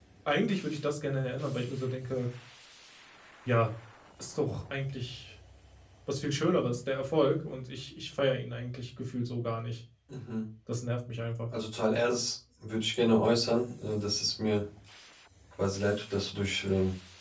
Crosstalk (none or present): none